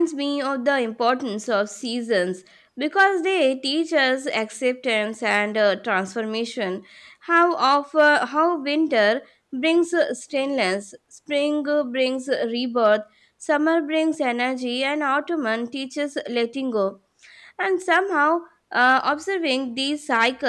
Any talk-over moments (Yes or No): No